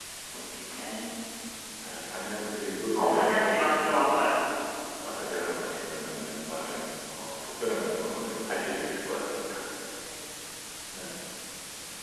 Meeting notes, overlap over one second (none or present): present